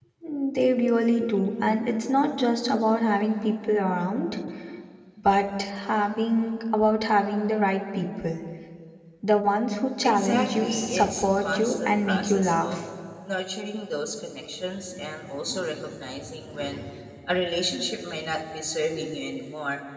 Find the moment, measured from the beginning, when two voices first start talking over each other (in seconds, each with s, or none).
10.0 s